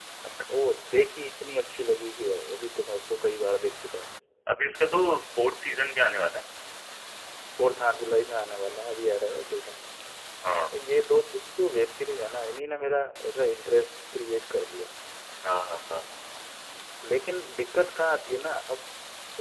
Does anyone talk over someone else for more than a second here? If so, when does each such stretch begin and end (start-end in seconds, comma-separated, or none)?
none